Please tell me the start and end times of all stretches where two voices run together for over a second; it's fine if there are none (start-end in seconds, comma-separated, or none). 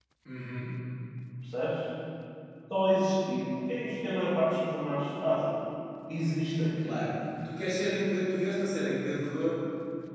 none